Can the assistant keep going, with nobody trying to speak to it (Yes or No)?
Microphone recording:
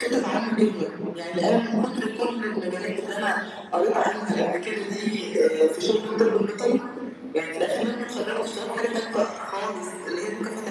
Yes